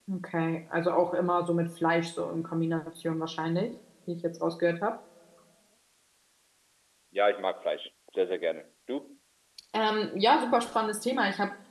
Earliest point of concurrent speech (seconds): none

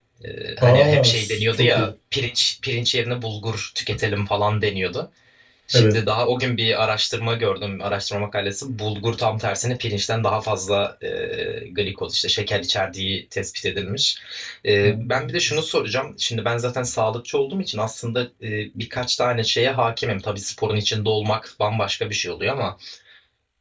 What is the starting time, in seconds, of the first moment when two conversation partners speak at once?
0.6 s

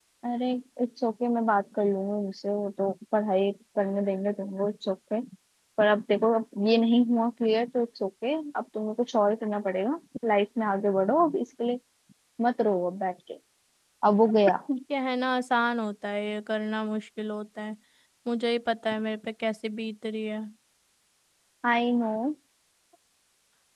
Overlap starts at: none

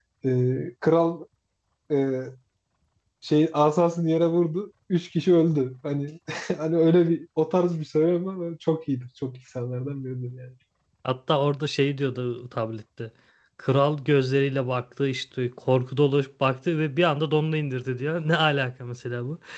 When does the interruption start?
none

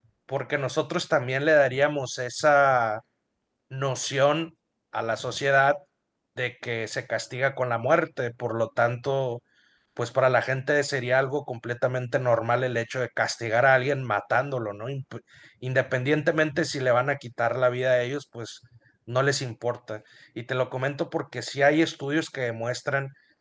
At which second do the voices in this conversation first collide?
none

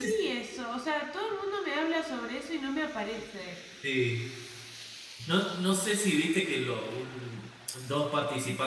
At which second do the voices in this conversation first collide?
none

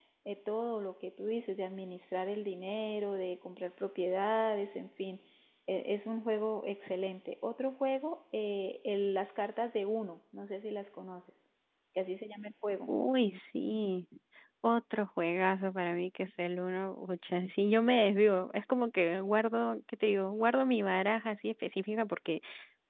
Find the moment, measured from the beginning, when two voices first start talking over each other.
none

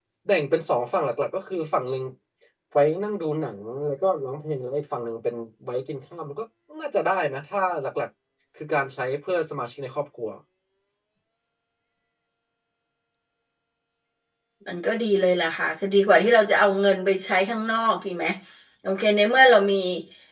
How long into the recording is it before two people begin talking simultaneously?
none

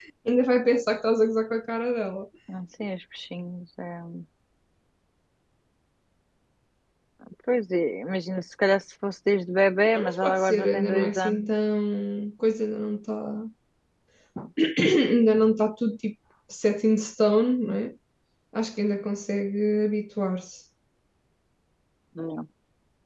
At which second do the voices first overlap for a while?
9.9 s

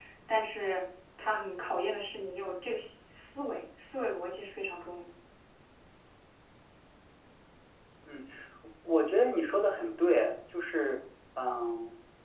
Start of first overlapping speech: none

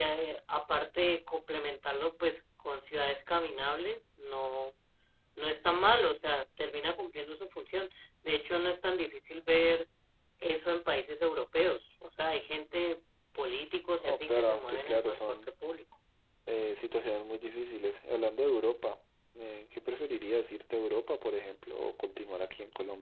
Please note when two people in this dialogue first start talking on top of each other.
14.0 s

